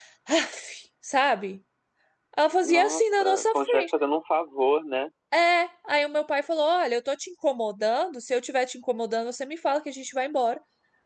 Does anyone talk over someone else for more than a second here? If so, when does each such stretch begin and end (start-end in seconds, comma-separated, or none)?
2.6-3.9